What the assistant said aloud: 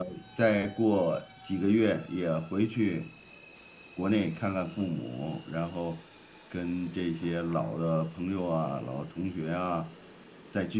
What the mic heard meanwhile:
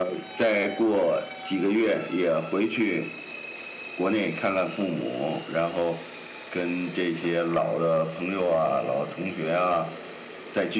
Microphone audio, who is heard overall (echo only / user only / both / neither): echo only